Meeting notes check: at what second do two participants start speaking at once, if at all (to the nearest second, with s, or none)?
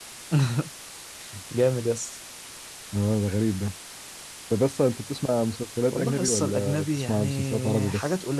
6 s